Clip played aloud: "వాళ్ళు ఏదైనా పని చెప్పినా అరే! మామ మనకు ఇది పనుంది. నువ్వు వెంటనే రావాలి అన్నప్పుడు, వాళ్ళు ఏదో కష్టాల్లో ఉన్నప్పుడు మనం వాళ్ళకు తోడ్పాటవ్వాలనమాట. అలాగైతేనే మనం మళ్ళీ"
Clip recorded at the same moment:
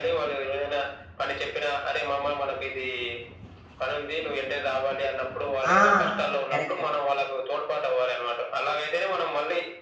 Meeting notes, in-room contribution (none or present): present